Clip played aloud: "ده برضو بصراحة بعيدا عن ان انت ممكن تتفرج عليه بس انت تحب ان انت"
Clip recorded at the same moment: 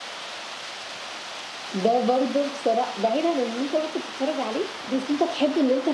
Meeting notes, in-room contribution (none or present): none